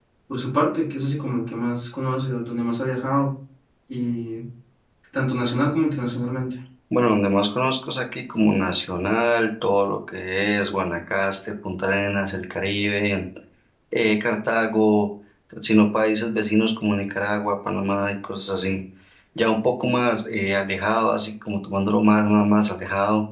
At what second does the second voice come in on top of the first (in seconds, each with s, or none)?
none